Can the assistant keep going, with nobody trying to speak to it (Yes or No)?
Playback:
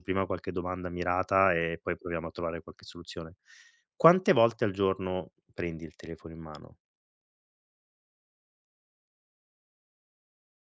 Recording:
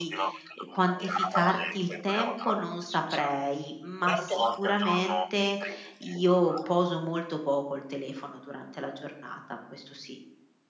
No